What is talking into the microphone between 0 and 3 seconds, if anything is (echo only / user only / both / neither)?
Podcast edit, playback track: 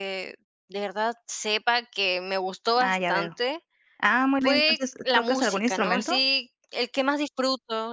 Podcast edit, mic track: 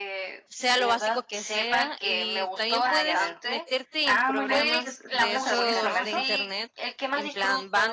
both